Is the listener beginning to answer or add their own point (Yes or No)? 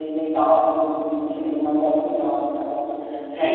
Yes